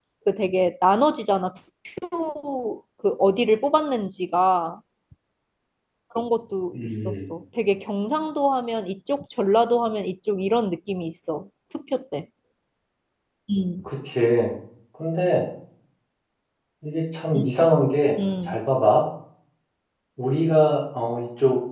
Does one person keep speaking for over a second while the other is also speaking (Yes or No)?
No